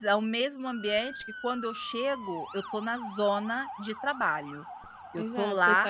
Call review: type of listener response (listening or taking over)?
taking over